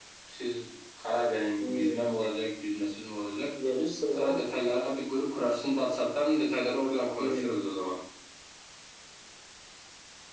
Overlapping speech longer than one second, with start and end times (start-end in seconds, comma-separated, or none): none